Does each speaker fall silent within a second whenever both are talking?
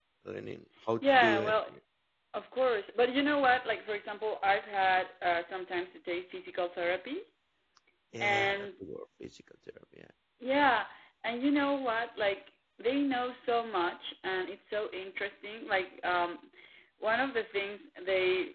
Yes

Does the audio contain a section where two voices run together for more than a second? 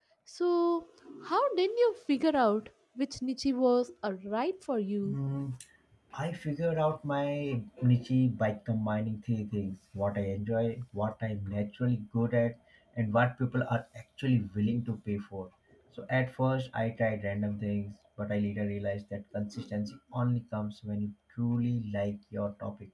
No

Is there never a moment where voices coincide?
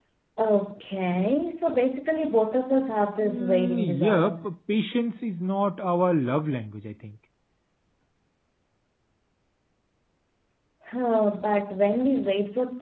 No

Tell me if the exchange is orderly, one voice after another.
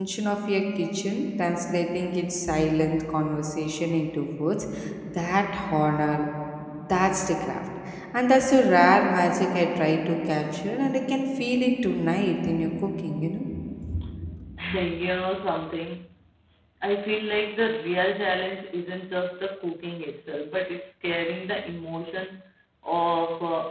Yes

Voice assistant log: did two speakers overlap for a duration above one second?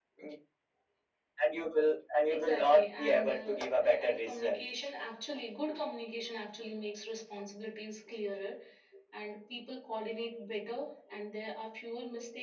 Yes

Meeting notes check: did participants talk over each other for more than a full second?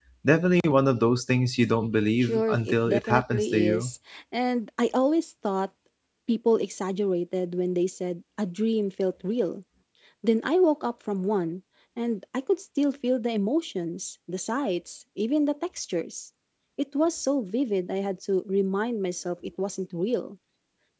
Yes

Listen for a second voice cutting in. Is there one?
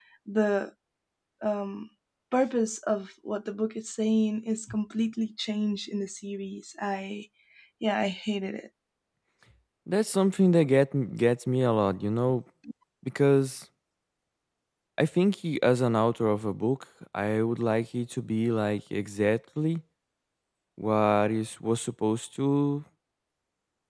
No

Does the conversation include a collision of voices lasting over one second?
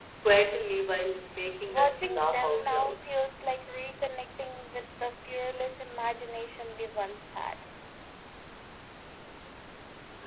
Yes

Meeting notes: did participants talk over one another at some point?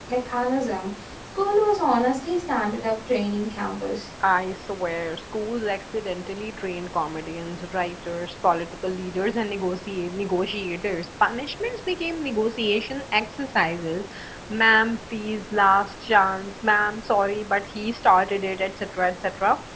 No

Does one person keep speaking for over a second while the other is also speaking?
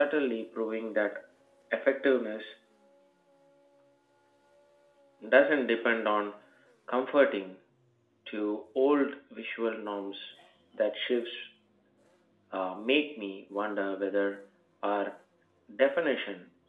No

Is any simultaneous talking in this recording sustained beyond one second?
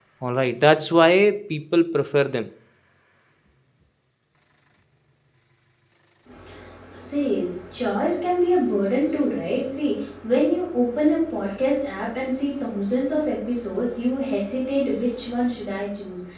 No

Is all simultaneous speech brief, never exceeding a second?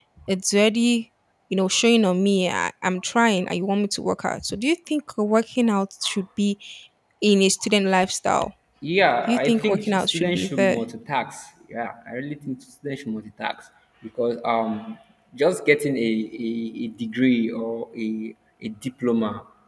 No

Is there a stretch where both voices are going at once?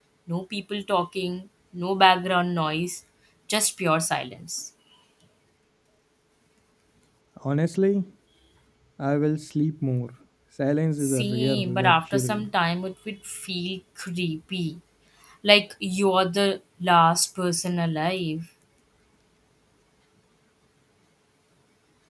Yes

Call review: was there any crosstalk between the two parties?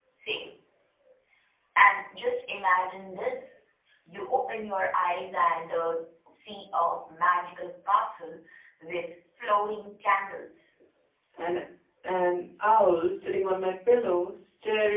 No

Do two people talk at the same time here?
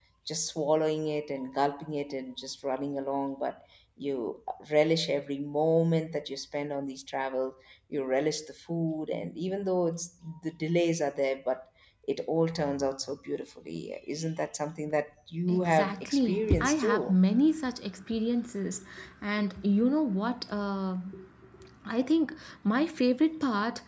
Yes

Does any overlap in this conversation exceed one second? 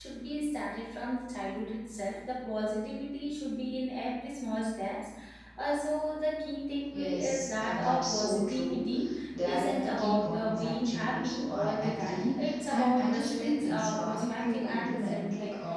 Yes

